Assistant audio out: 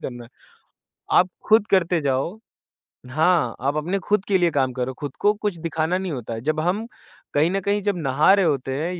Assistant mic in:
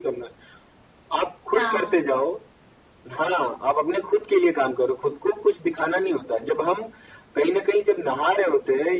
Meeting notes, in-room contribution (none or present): present